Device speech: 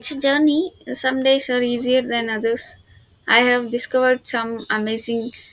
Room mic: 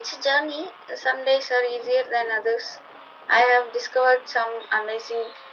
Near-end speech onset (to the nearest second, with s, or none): none